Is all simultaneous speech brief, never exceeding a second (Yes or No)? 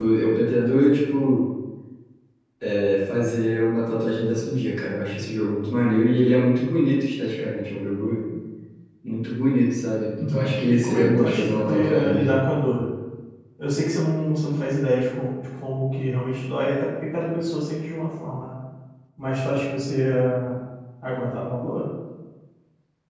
No